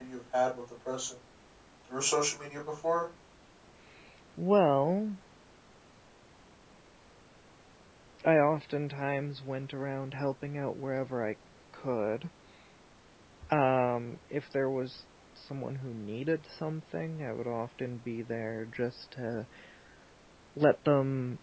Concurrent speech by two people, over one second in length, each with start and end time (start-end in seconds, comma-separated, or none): none